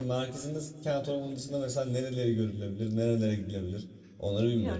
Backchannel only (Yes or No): No